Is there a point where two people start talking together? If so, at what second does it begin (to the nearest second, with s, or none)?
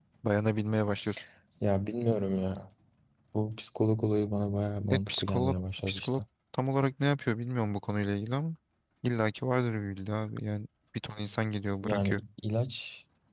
5 s